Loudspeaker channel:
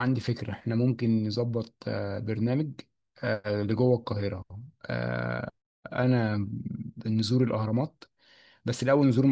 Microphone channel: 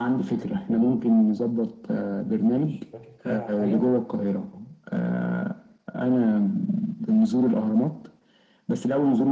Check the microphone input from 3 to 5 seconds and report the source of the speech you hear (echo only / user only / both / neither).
both